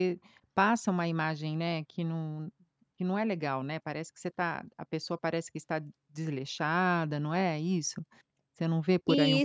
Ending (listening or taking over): taking over